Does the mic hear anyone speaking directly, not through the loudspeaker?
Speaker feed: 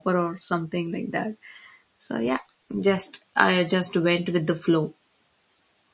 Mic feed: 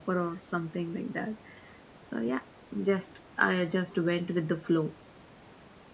No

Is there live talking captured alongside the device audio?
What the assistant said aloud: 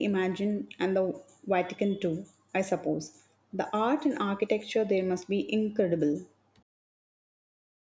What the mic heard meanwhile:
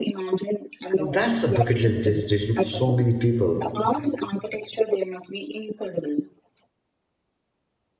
Yes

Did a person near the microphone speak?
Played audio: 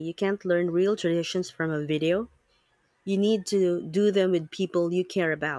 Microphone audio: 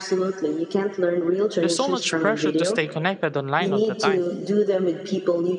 Yes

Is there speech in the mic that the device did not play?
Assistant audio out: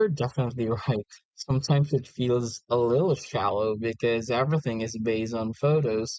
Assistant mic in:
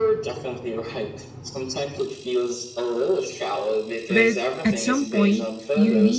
Yes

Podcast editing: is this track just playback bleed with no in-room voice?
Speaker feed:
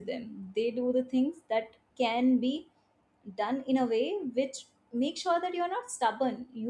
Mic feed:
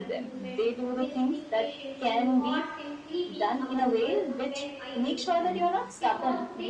No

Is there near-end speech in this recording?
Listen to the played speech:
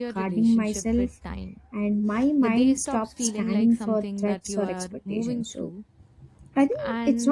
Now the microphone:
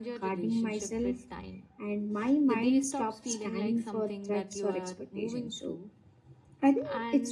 No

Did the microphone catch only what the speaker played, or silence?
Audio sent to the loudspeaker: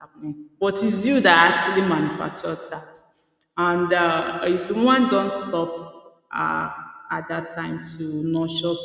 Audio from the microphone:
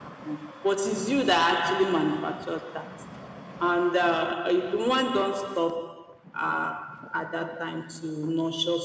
Yes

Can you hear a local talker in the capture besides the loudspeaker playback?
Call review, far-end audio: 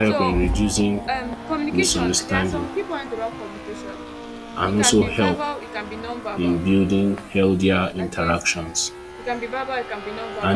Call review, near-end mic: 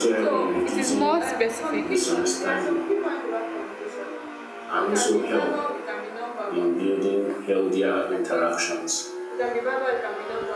Yes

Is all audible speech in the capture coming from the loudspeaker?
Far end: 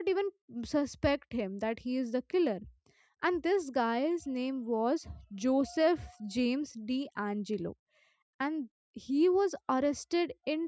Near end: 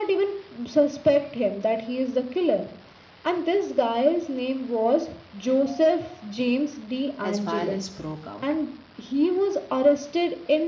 No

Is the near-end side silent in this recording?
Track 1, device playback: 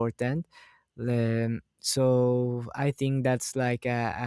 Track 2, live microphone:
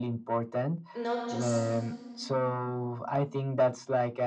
No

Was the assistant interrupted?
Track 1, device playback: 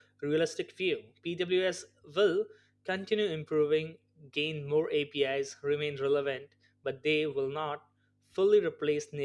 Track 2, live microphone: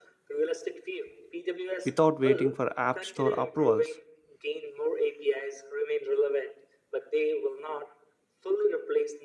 Yes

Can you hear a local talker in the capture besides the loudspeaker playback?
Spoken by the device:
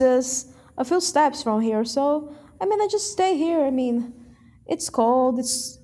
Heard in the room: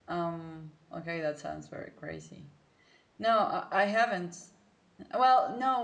Yes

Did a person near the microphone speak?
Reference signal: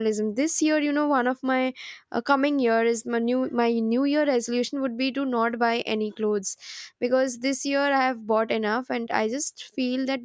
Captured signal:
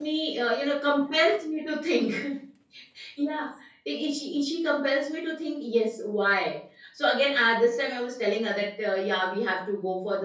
Yes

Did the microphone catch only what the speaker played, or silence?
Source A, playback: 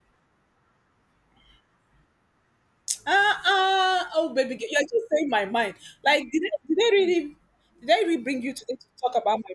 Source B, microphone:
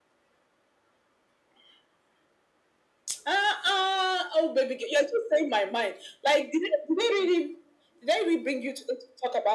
Yes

